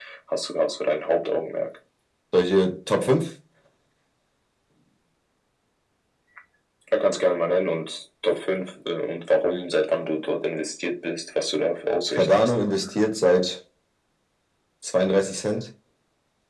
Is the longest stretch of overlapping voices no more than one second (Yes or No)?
Yes